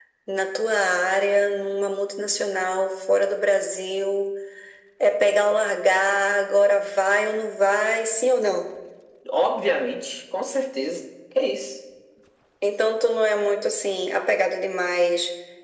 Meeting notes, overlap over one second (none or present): none